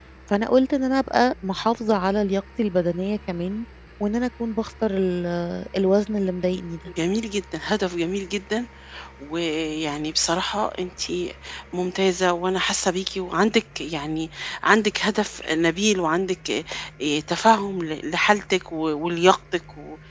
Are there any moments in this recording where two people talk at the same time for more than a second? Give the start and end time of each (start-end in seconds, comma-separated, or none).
none